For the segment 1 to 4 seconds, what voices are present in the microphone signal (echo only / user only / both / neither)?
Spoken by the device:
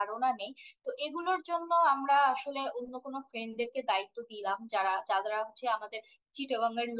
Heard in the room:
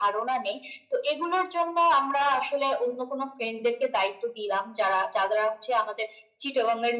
echo only